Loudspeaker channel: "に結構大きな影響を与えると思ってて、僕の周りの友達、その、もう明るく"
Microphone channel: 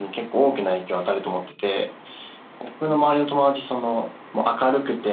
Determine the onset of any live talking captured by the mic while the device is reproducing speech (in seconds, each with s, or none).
none